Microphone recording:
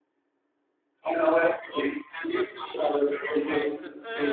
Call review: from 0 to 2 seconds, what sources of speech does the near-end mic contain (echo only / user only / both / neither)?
echo only